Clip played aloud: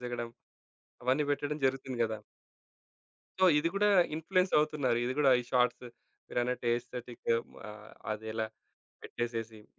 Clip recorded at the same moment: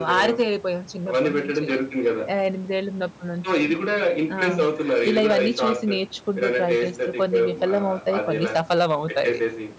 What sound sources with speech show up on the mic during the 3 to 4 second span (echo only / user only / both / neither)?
both